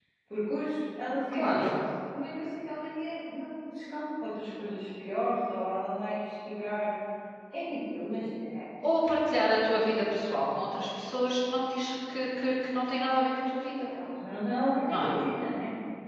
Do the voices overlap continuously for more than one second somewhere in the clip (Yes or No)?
No